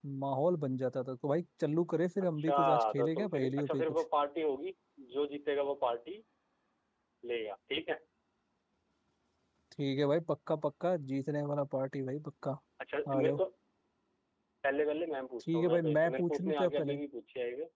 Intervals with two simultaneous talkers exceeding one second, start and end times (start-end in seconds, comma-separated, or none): 2.4-4.0, 15.4-17.0